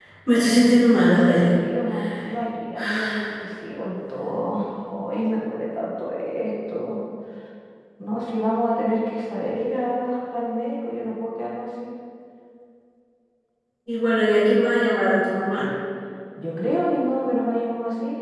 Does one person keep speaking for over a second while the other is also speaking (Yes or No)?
No